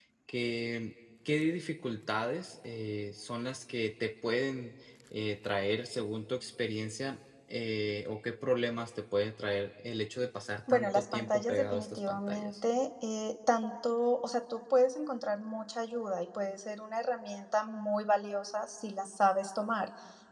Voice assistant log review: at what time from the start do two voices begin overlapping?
10.7 s

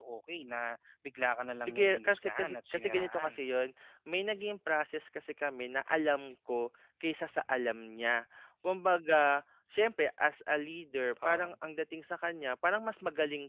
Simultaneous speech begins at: 1.6 s

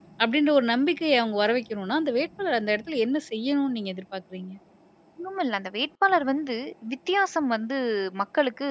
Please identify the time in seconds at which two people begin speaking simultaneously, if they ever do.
none

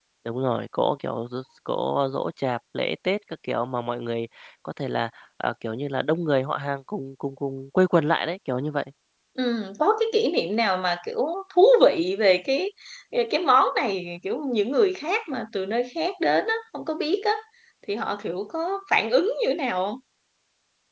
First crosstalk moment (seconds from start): none

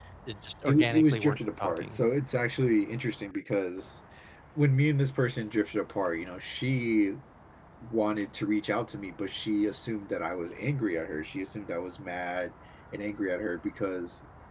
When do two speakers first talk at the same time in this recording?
0.7 s

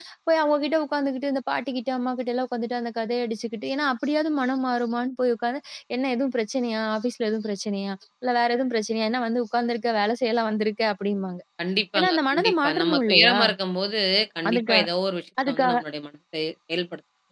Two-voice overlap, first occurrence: 12.0 s

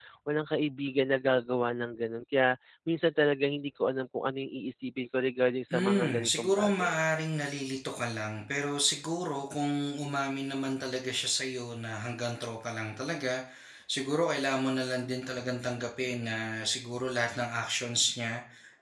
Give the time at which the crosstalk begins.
5.7 s

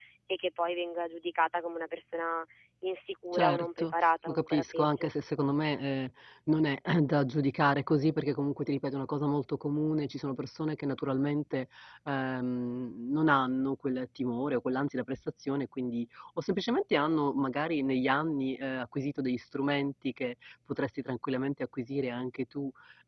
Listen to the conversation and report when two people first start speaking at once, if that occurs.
3.3 s

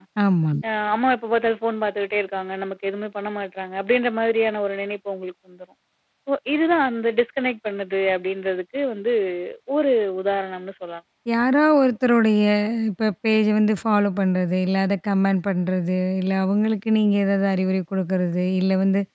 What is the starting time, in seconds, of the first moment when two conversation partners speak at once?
none

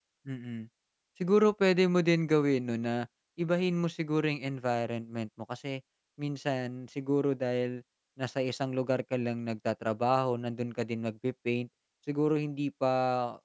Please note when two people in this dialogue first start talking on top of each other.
none

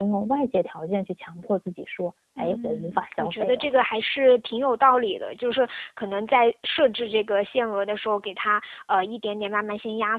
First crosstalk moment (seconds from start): 2.4 s

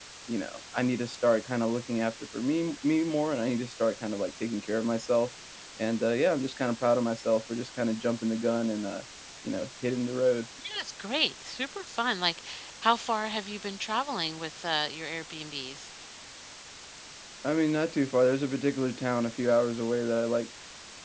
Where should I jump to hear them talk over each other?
none

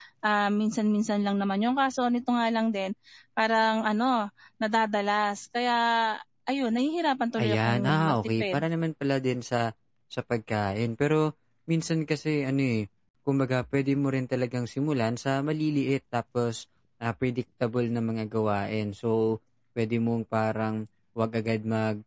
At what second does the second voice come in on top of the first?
7.4 s

